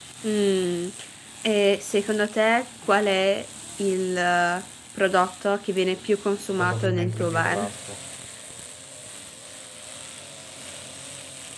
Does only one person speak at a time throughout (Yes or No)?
No